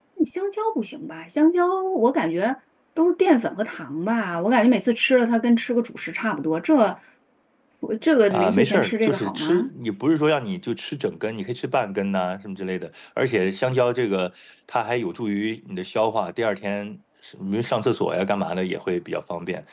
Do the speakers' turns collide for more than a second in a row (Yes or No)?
Yes